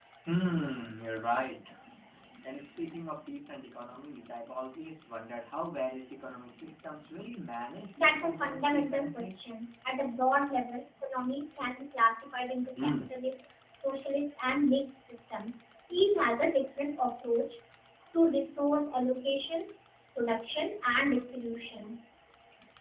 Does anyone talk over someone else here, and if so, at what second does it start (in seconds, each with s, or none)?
8.0 s